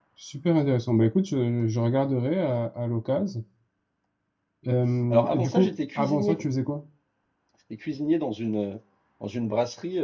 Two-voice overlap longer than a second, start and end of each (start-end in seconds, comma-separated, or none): 5.1-6.4